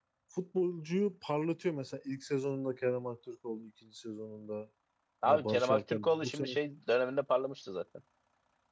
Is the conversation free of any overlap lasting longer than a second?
No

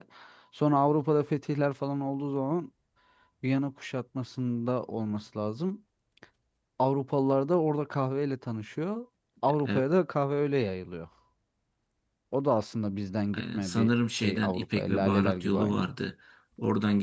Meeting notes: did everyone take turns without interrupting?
No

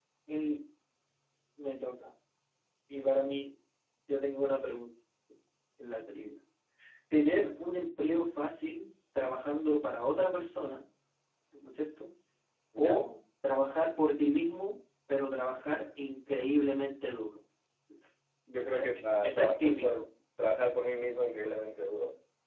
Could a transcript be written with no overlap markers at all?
No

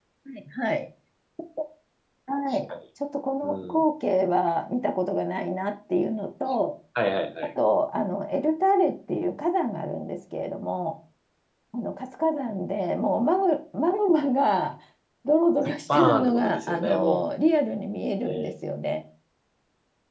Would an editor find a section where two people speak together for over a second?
Yes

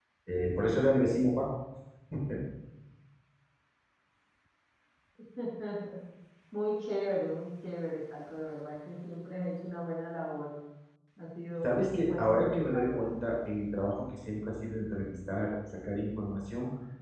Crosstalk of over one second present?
Yes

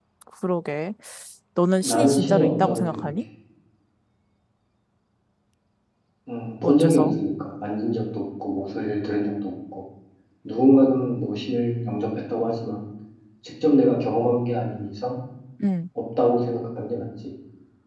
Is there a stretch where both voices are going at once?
Yes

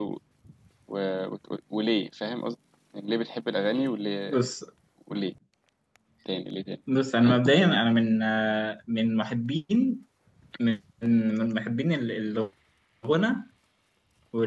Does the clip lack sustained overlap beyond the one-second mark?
Yes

